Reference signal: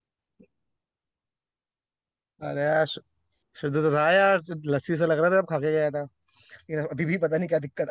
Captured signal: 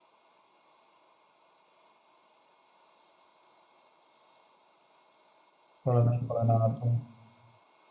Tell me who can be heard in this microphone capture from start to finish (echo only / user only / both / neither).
user only